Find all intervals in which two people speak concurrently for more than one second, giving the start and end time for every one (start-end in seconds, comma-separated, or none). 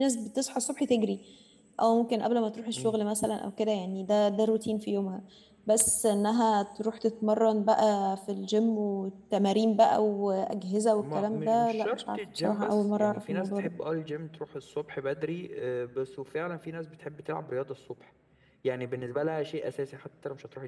11.0-13.7